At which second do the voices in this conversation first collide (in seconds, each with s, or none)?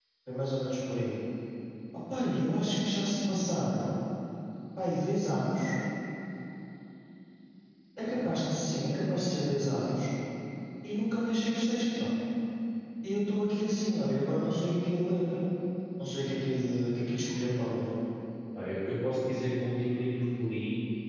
none